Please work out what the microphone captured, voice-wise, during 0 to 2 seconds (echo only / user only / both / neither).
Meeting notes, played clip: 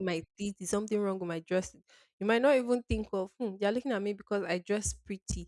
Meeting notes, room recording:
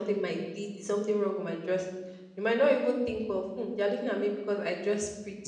echo only